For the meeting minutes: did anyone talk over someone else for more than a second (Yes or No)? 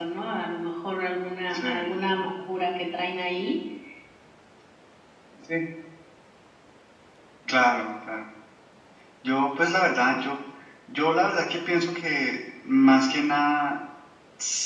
No